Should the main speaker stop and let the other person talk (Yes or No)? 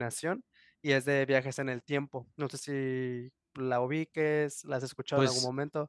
Yes